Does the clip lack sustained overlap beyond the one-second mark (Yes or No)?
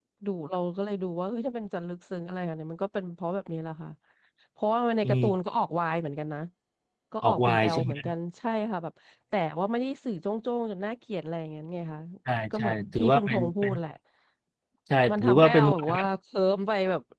No